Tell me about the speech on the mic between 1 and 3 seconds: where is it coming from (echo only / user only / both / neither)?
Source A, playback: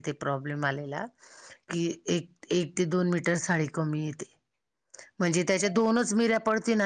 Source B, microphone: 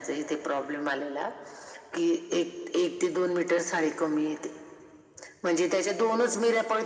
echo only